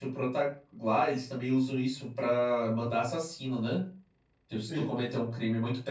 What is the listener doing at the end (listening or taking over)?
listening